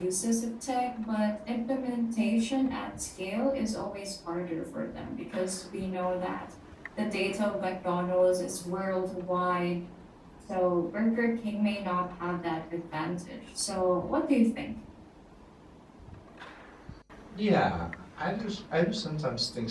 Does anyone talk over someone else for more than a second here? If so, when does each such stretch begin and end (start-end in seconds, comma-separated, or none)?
none